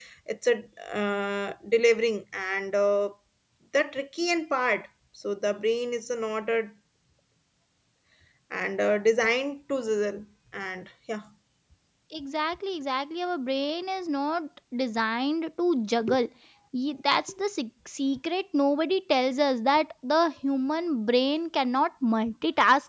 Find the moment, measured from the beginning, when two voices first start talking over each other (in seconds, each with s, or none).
none